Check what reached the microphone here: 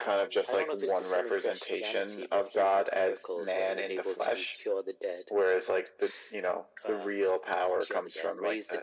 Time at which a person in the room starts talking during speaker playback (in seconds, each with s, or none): none